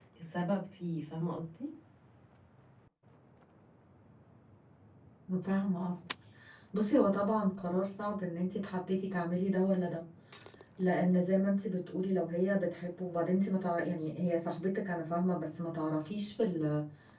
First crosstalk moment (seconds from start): none

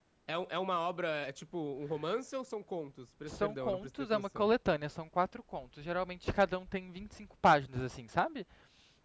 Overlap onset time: 3.2 s

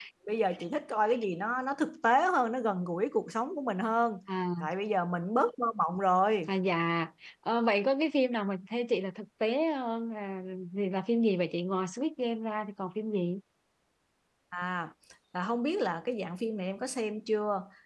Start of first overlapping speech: none

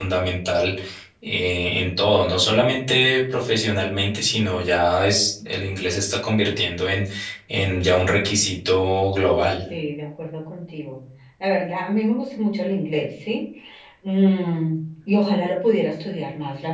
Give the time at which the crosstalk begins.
none

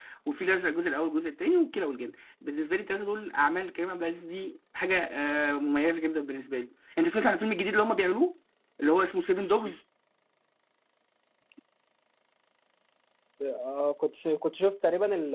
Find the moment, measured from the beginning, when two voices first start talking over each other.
none

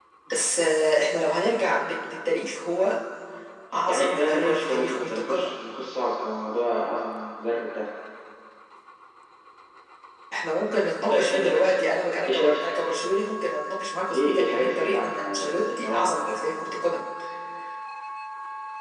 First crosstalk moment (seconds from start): 3.9 s

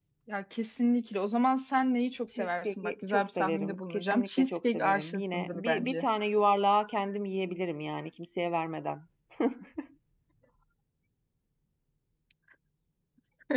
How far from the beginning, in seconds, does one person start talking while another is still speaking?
2.4 s

